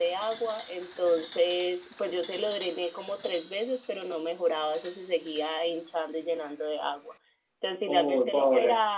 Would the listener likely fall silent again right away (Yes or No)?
Yes